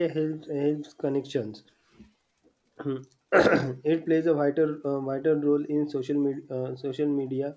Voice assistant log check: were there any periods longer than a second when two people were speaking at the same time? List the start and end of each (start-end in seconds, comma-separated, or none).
none